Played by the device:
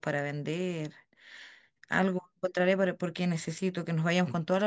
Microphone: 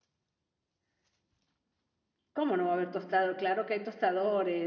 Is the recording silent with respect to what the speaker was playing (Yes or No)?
Yes